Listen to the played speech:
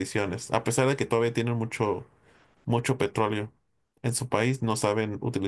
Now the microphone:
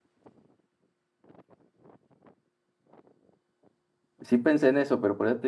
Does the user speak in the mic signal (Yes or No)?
Yes